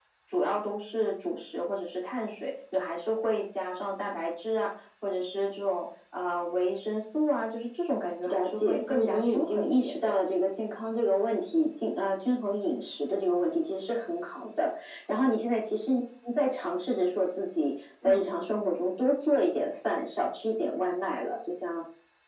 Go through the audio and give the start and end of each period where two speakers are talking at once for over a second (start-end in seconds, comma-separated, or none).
8.3-10.1